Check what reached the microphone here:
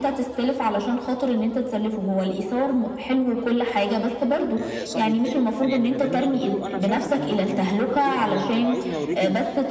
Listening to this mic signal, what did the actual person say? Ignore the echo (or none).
آآ صاحبي التاني يعني اللي ما بيننا قُلت له أنا فعلًا أنا م يعني قُلت له أنا أنت لو عايزني أورّيك ال